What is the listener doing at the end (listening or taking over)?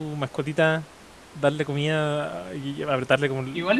taking over